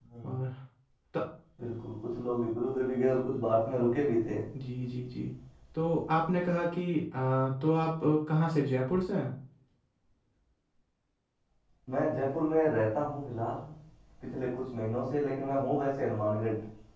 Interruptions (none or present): none